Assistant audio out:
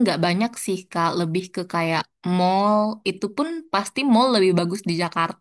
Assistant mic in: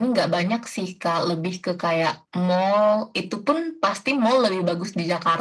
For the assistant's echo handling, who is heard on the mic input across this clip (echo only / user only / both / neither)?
echo only